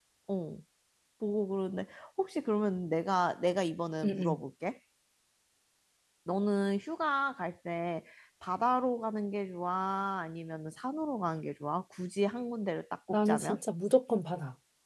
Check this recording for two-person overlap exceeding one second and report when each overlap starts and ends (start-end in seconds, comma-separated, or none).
none